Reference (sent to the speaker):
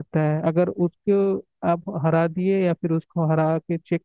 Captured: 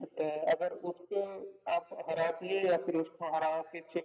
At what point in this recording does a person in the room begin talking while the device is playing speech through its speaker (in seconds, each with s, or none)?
none